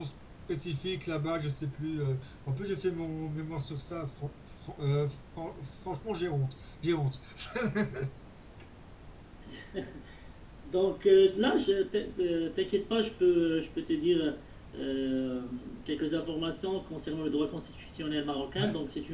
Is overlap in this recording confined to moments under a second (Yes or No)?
Yes